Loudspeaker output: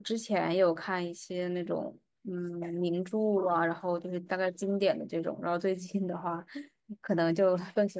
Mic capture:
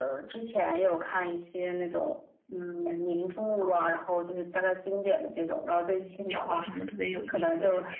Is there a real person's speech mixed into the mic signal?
Yes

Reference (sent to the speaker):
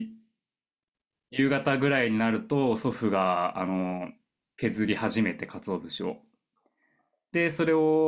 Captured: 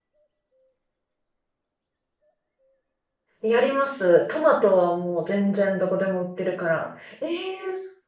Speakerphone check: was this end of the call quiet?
No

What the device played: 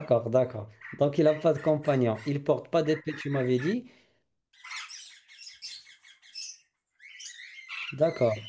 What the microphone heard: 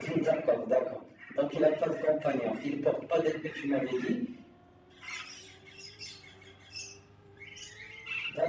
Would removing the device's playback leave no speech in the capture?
Yes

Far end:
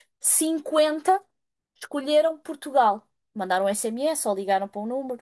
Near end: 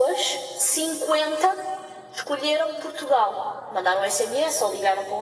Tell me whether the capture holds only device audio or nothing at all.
Yes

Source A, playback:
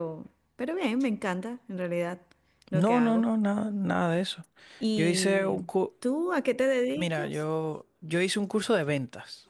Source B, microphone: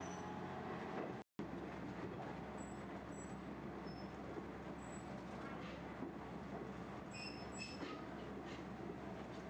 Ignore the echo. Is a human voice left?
No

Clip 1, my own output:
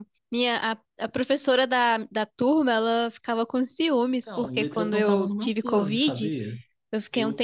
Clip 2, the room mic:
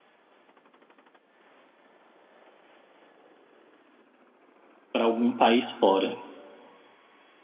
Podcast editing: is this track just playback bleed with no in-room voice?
No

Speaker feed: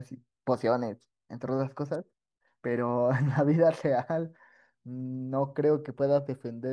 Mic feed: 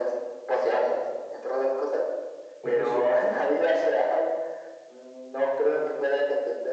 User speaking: Yes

